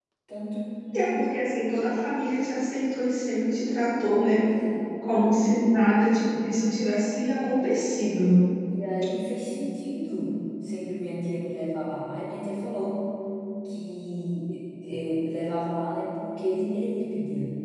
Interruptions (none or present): none